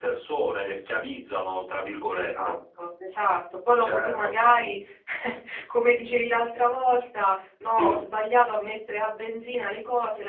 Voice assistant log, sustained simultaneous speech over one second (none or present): none